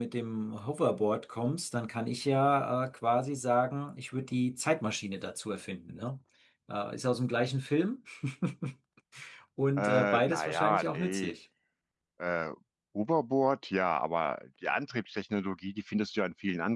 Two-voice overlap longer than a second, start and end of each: 9.8-11.3

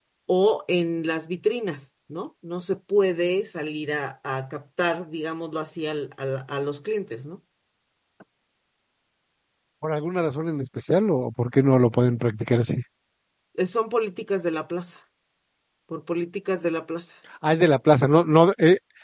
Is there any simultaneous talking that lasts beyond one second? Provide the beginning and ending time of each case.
none

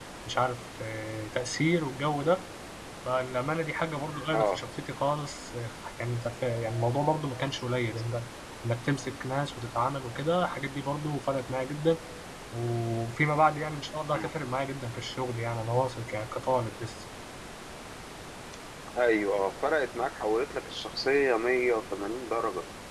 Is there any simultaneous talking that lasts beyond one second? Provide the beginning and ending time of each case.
none

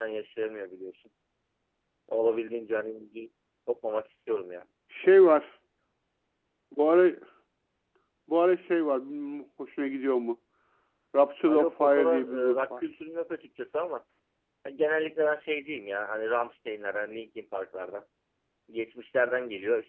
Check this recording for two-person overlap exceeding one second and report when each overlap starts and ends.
11.5-12.8

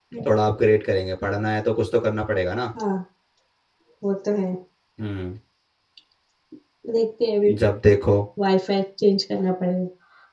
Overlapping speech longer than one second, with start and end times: none

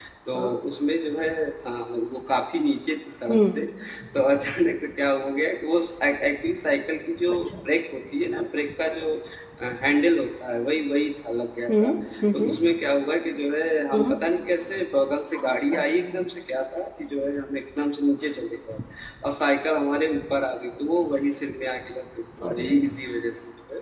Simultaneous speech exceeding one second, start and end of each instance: none

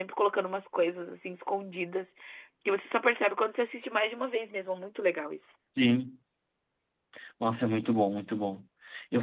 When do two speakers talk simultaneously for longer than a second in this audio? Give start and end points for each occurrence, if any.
none

